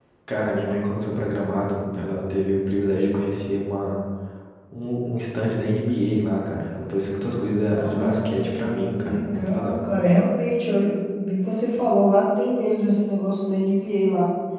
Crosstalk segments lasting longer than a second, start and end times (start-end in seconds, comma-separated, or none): 7.8-9.7